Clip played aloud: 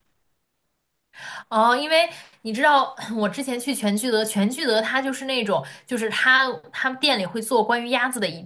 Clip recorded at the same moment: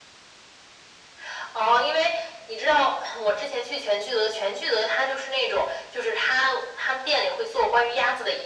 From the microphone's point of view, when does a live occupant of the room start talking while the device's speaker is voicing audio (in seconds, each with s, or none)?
none